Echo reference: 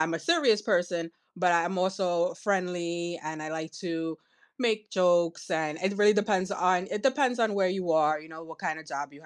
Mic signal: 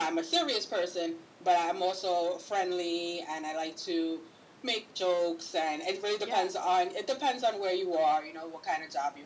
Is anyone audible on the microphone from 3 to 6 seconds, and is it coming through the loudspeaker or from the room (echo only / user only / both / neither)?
echo only